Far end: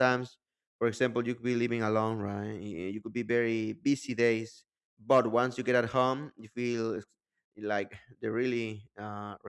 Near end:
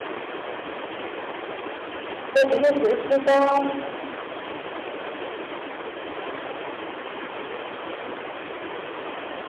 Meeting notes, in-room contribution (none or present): present